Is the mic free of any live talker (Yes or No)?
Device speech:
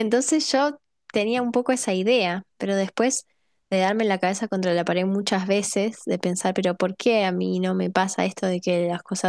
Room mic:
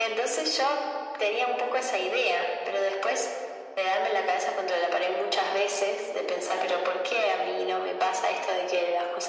Yes